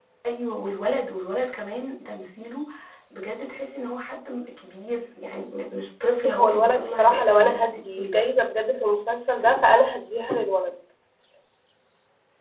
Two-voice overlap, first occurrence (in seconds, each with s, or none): 6.1 s